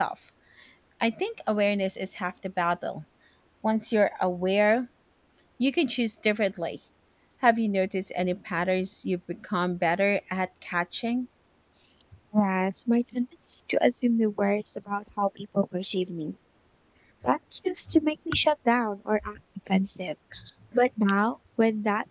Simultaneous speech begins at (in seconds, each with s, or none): none